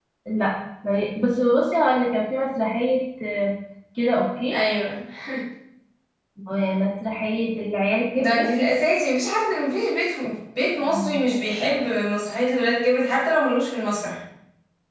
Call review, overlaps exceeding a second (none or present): none